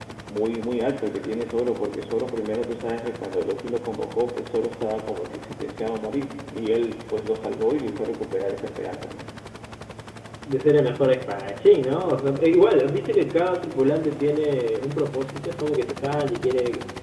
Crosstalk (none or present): none